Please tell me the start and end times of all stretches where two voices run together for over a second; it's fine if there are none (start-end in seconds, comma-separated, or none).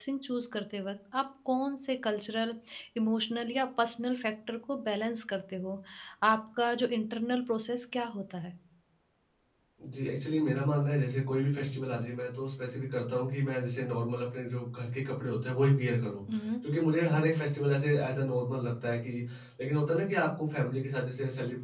none